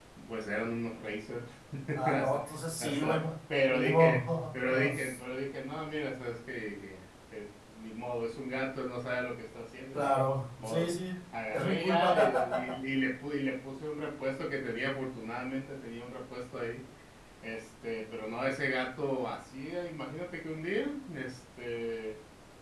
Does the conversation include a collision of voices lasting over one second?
Yes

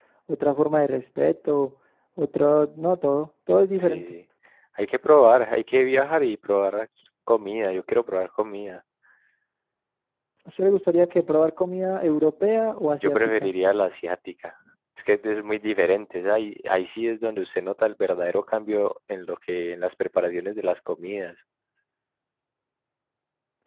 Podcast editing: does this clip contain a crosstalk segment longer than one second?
No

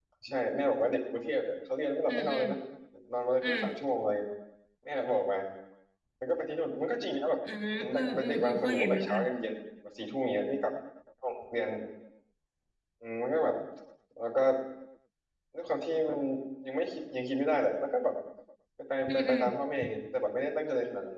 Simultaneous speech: Yes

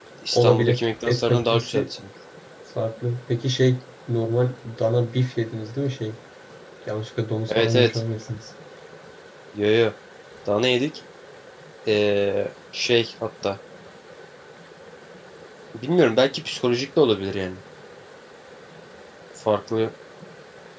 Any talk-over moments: Yes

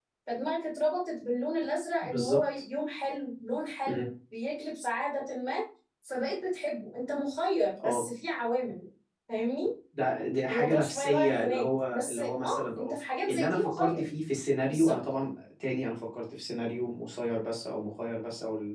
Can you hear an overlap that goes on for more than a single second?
Yes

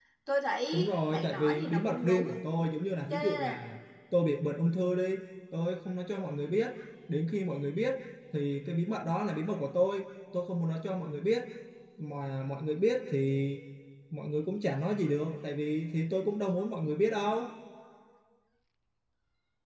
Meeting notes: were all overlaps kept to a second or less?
No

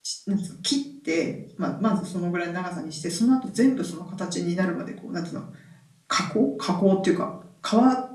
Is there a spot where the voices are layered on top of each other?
No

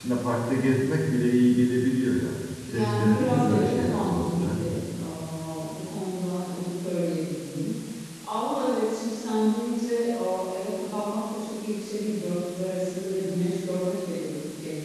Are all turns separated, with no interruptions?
No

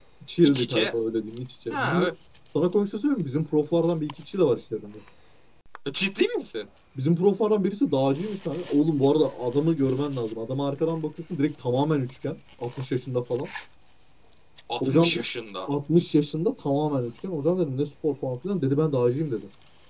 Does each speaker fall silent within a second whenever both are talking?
Yes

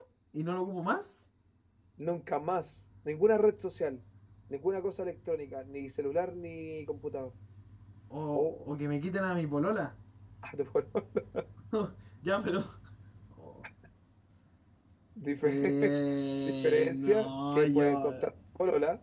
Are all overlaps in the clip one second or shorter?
No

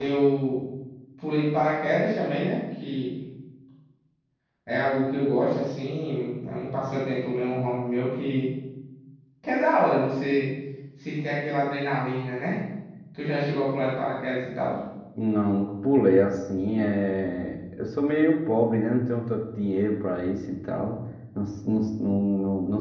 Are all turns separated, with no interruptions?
Yes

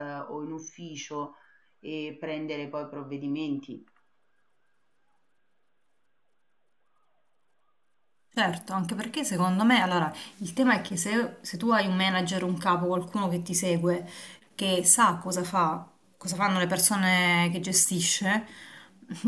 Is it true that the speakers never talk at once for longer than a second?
Yes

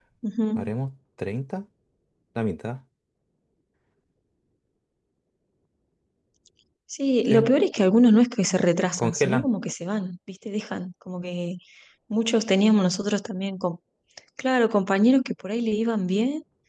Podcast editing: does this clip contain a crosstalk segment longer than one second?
No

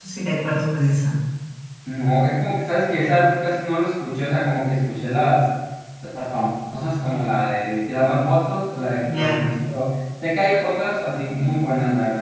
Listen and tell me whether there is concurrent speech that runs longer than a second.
No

